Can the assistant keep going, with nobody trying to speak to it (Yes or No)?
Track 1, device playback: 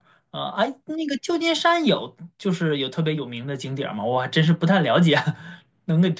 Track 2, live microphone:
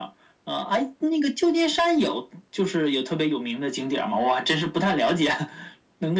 Yes